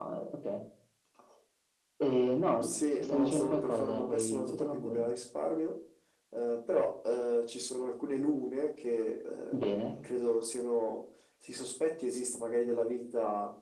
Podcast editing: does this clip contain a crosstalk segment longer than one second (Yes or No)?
Yes